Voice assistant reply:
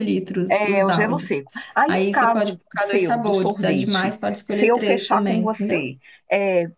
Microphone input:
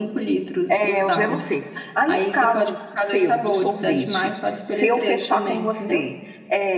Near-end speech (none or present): none